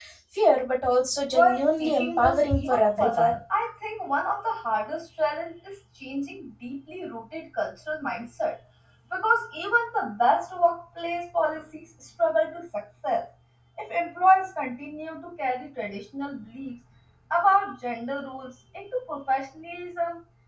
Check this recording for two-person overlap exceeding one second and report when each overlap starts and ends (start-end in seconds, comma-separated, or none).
1.3-3.3